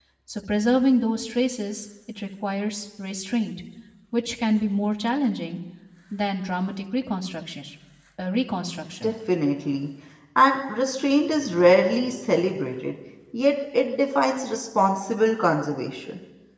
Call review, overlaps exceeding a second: none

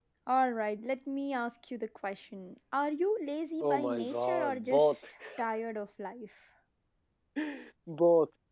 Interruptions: present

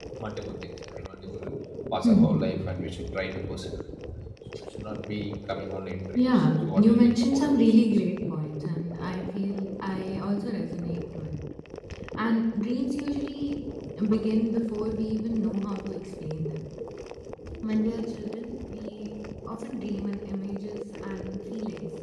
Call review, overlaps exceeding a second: present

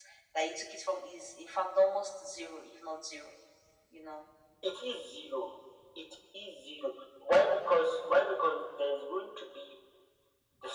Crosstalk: none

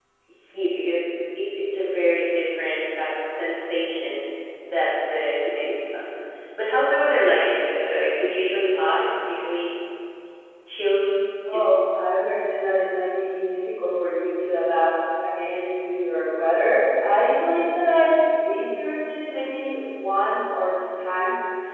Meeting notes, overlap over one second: none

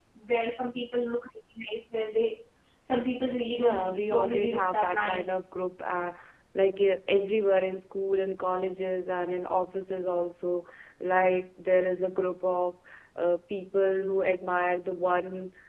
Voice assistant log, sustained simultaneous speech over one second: present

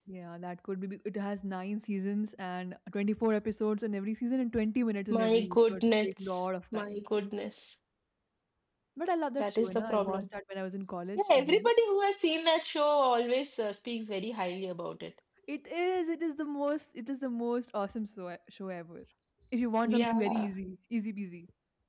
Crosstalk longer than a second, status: present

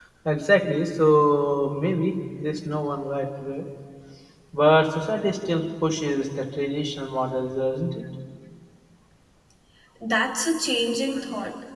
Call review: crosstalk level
none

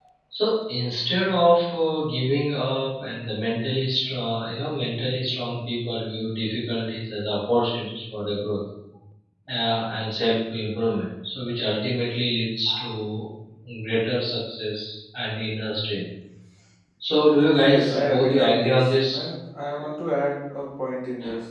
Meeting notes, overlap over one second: present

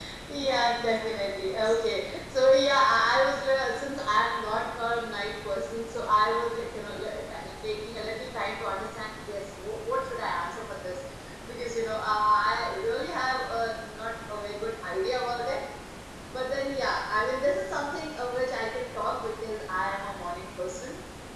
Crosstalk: present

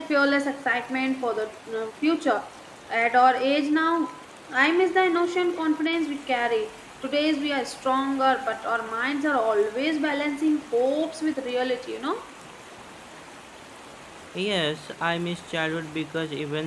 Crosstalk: none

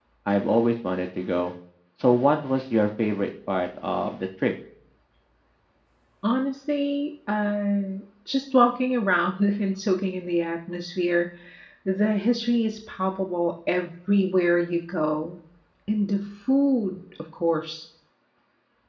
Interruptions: none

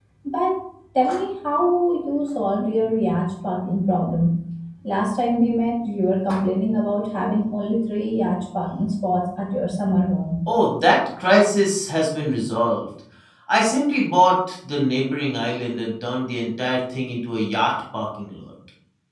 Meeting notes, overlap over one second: none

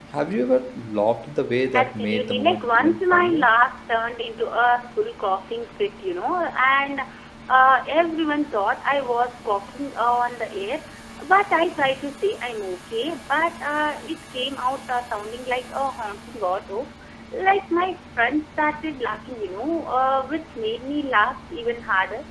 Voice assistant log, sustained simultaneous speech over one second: present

